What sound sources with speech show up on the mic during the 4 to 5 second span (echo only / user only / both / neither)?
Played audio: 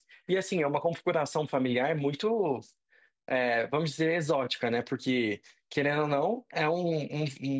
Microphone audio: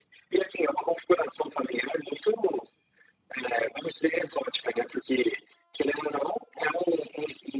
echo only